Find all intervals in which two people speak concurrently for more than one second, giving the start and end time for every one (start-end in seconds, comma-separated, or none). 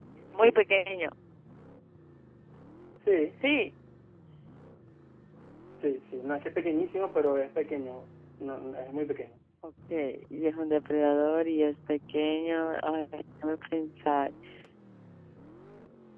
none